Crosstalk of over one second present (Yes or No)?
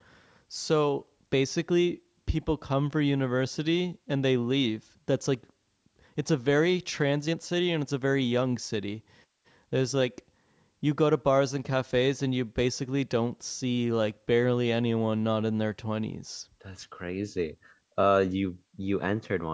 No